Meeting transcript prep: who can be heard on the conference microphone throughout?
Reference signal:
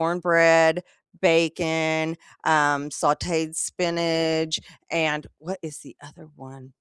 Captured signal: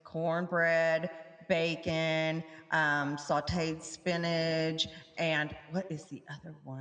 echo only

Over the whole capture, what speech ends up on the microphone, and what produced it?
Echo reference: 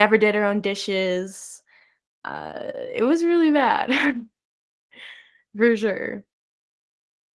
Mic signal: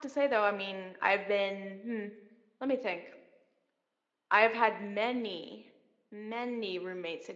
user only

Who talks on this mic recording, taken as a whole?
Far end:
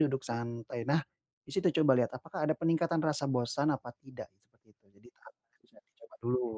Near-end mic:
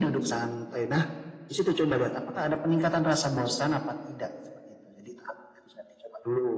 echo only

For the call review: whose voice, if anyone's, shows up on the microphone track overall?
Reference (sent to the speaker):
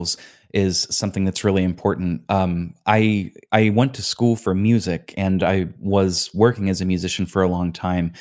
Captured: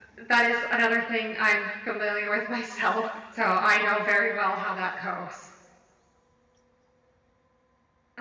user only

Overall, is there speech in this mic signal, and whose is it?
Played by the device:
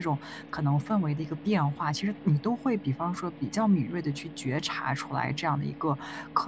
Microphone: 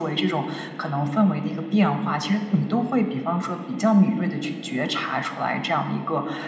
echo only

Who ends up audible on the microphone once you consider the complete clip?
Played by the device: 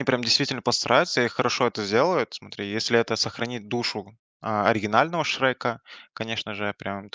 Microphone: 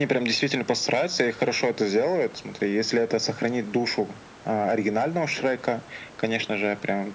echo only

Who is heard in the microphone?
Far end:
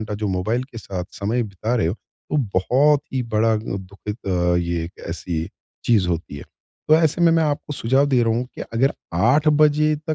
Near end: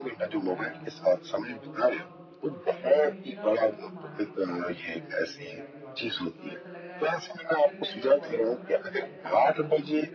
both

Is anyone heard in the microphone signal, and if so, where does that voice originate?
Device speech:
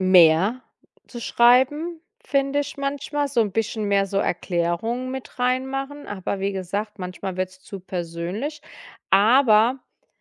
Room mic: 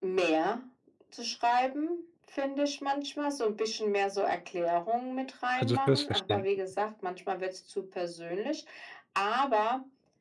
both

